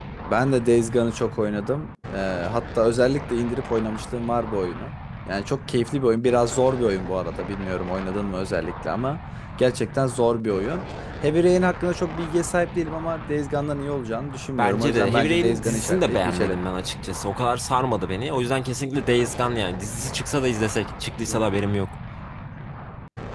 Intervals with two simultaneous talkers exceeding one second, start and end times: 14.6-16.6

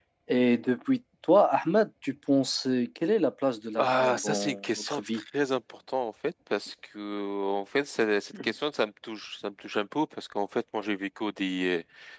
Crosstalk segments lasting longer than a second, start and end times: 3.8-5.2

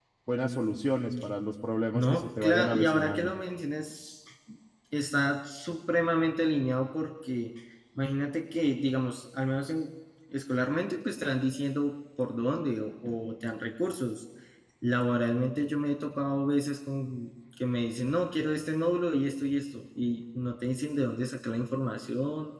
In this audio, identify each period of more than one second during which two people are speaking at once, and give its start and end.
1.9-3.3

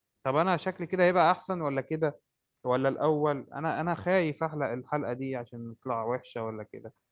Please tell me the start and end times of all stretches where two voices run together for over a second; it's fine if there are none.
none

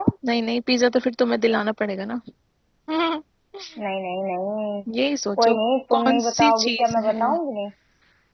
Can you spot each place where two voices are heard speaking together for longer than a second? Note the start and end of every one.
6.0-7.3

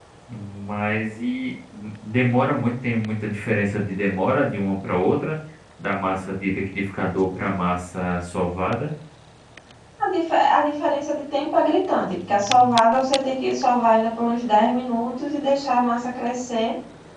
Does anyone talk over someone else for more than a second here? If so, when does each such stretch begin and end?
none

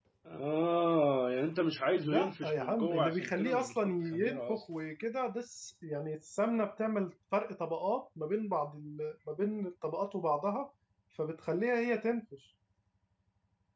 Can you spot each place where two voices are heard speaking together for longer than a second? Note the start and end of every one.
2.0-4.6

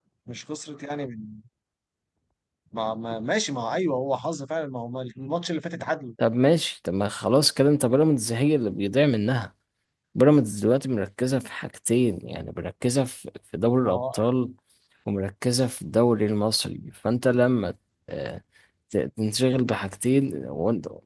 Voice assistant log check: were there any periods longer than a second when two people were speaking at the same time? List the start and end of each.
none

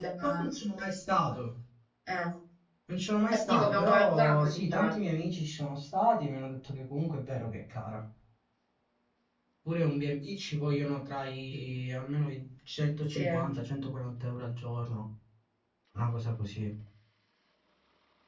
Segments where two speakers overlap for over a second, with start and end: 3.3-5.1

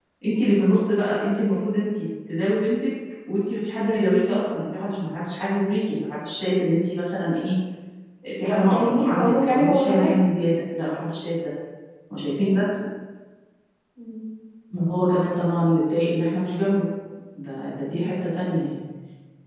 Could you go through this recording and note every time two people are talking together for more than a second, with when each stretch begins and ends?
8.5-10.2

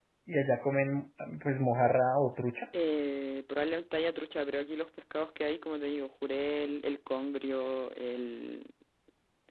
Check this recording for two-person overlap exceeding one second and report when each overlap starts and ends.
none

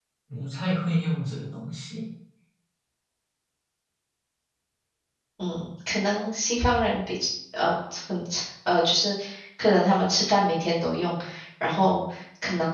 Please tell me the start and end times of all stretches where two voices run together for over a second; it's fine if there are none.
none

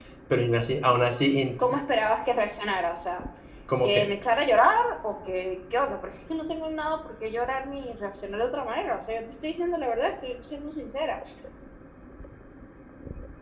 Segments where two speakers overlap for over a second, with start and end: none

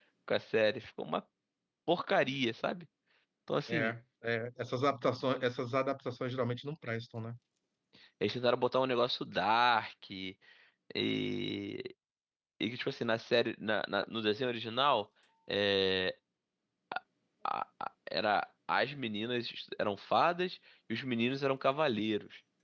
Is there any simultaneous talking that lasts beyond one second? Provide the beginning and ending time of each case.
none

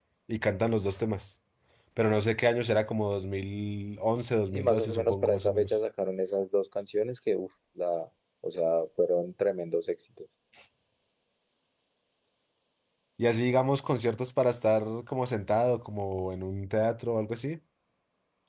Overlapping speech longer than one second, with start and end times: 4.5-5.8

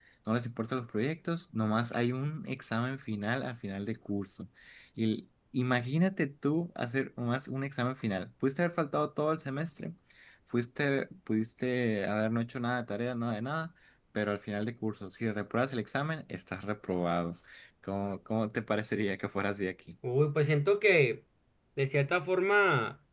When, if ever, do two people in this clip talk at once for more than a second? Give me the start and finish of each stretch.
none

